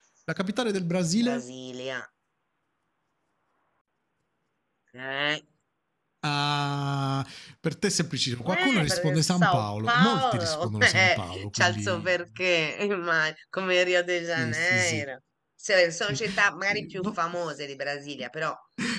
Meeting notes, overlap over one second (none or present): present